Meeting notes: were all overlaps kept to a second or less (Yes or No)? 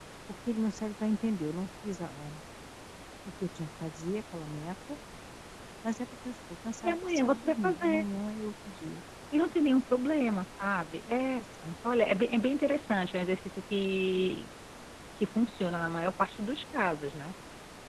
No